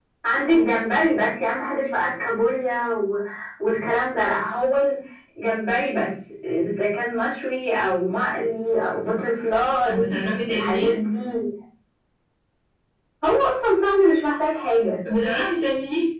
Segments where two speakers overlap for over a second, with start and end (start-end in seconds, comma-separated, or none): none